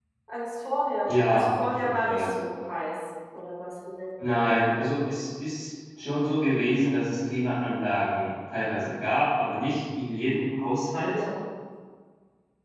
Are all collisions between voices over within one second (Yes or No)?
No